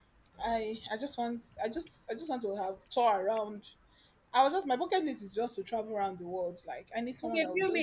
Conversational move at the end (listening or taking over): taking over